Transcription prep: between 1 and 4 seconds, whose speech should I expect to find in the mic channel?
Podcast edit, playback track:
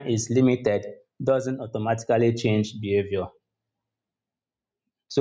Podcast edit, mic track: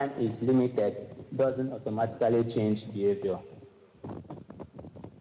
echo only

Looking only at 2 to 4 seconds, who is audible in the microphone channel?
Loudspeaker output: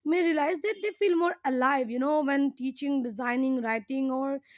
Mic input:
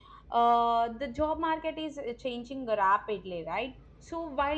user only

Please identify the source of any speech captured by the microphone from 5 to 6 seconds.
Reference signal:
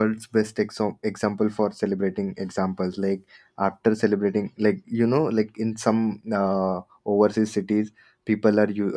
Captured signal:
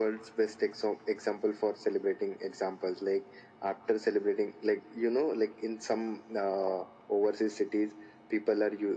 echo only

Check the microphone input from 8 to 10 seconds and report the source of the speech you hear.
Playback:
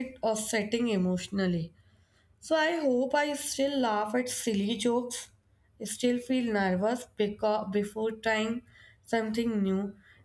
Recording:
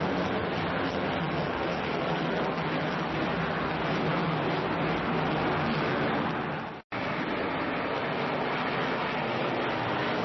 neither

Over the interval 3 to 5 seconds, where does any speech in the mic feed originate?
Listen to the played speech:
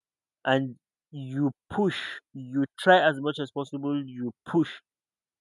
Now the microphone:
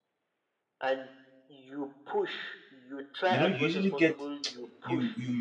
both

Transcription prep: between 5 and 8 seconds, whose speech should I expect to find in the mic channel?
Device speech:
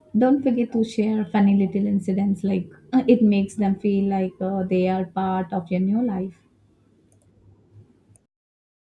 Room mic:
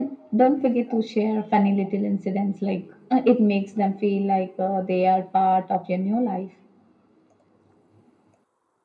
echo only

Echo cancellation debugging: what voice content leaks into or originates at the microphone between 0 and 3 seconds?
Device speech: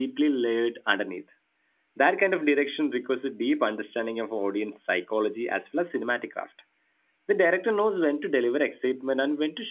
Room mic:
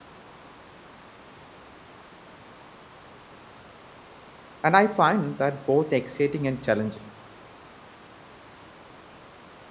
neither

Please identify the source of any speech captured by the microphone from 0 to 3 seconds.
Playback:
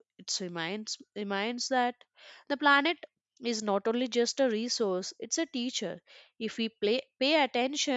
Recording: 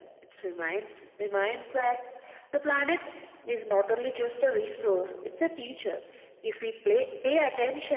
echo only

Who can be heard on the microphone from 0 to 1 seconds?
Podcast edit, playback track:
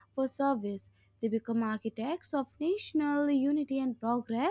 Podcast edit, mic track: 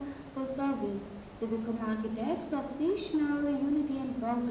echo only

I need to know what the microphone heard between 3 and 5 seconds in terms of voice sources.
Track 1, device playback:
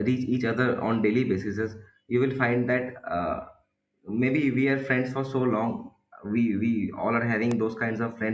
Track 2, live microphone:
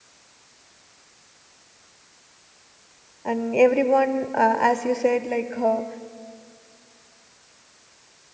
user only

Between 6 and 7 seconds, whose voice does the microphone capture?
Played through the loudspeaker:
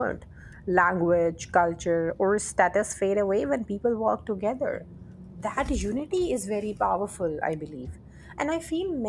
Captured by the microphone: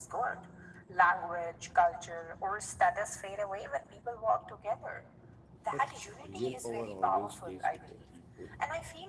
both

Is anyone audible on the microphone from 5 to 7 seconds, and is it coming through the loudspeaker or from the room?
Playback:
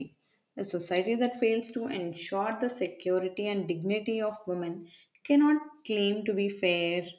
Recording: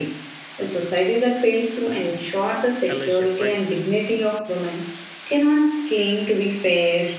echo only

